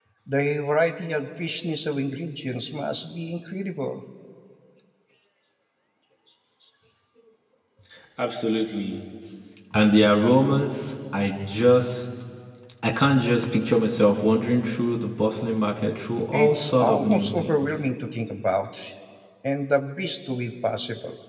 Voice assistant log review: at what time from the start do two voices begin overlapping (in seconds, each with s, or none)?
16.3 s